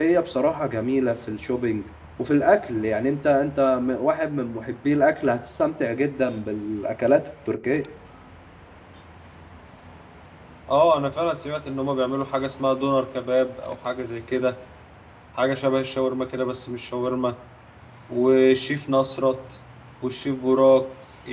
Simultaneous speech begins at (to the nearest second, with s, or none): none